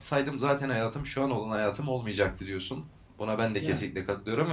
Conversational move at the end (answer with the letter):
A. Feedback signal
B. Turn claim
A